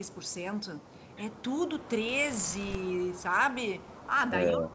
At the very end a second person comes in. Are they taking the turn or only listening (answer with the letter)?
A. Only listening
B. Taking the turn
A